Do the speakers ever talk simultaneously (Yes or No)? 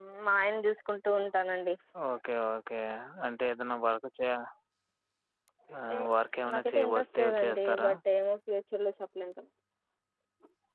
Yes